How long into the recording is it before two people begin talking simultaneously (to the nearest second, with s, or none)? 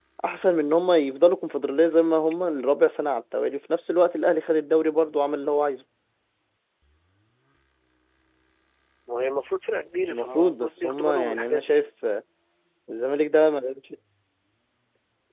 10 s